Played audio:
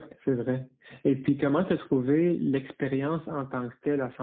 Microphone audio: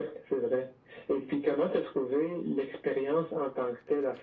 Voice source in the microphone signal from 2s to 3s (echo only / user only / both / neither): echo only